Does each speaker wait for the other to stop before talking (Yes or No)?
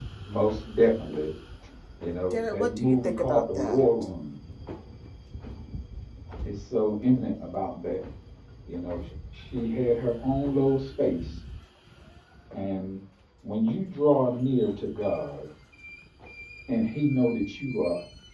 No